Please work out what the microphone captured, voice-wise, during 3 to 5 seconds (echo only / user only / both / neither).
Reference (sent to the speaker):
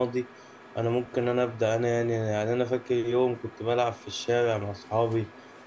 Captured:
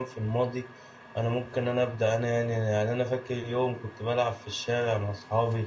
echo only